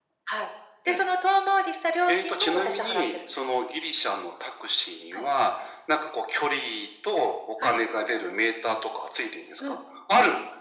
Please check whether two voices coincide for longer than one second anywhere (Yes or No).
Yes